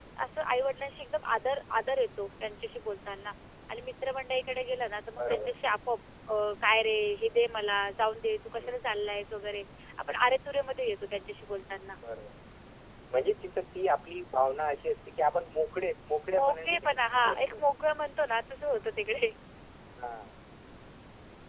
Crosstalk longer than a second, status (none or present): present